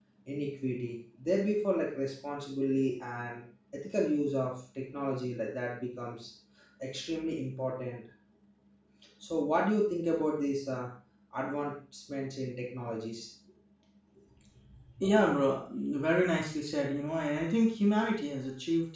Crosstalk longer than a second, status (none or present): none